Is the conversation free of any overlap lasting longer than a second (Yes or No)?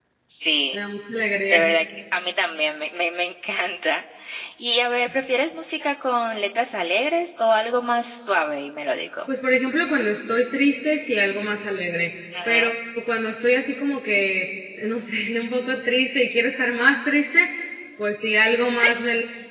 Yes